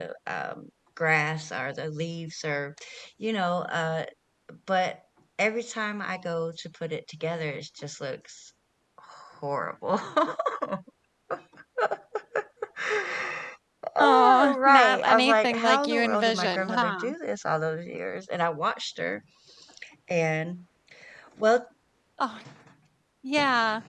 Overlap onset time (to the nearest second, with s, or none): 14 s